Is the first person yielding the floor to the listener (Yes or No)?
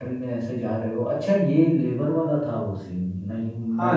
Yes